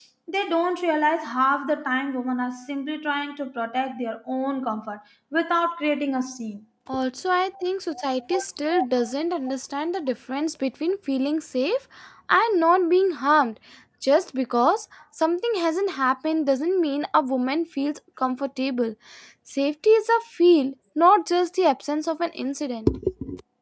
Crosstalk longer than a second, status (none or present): none